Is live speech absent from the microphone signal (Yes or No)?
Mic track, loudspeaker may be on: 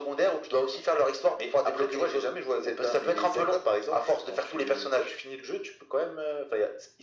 Yes